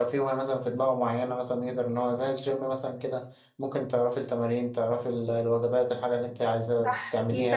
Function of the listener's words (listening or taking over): taking over